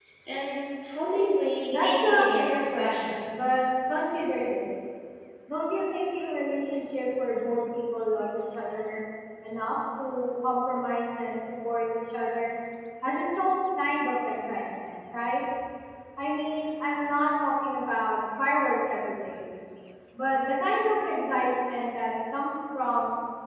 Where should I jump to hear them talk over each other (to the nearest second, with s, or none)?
2 s